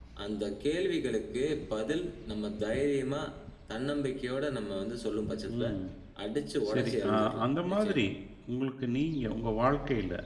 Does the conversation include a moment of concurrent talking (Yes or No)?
Yes